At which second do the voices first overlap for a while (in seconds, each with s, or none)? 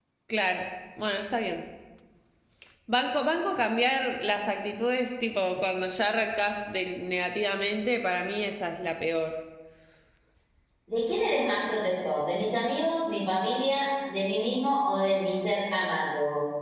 none